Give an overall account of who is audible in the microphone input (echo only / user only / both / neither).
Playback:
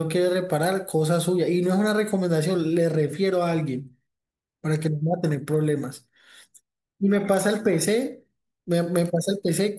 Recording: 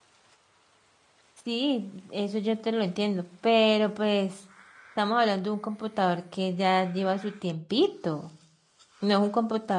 user only